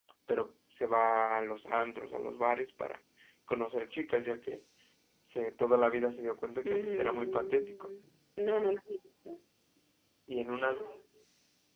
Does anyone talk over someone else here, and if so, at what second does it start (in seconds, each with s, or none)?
6.6 s